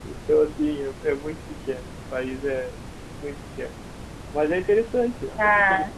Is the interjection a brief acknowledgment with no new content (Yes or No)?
No